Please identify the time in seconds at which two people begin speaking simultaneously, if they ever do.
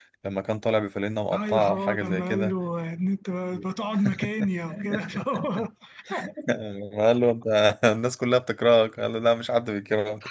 1.3 s

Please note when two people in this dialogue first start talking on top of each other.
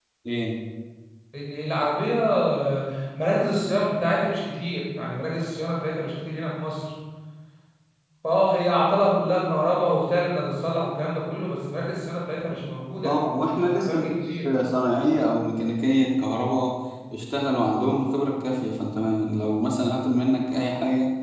13.0 s

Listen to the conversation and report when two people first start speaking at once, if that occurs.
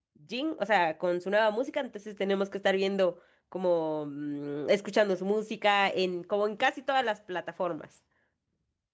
none

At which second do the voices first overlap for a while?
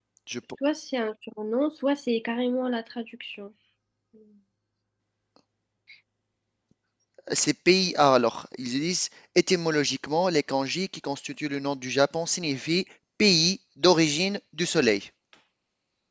none

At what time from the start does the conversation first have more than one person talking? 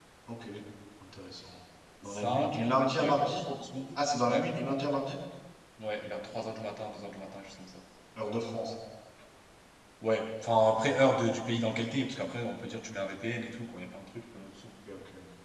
2.0 s

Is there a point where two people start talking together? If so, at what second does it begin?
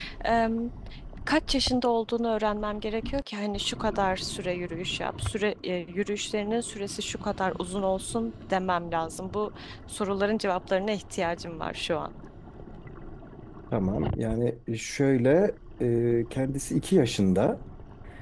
none

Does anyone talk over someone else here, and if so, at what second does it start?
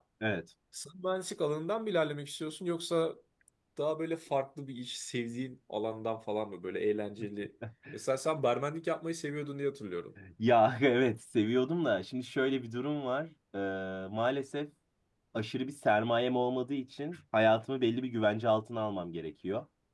none

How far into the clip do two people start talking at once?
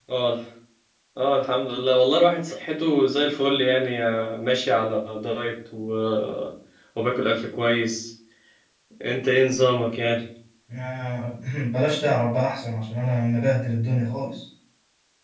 none

